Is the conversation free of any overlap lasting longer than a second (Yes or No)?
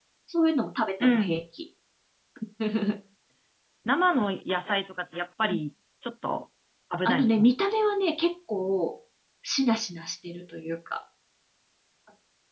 Yes